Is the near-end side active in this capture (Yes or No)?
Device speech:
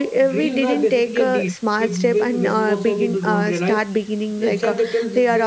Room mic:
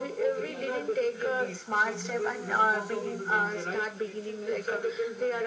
Yes